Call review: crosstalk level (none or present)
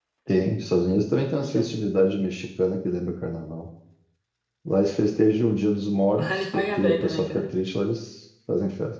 present